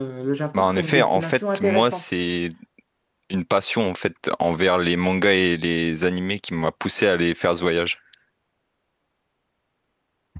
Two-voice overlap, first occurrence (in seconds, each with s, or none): 0.5 s